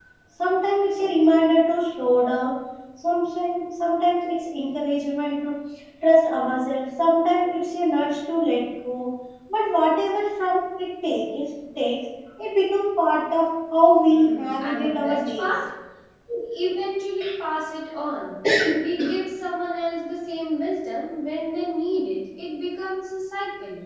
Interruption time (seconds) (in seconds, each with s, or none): 14.1 s